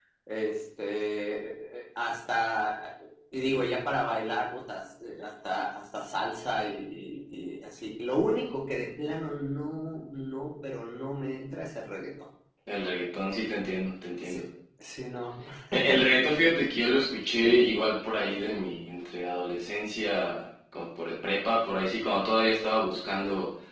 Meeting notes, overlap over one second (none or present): none